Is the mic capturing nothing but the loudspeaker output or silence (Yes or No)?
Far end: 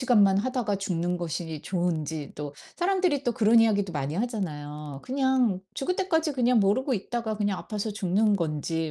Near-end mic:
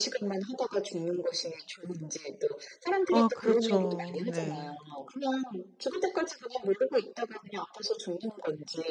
No